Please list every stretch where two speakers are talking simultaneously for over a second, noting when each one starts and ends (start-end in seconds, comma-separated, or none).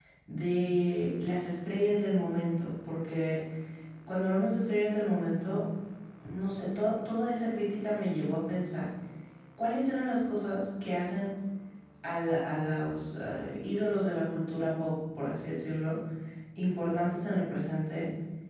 none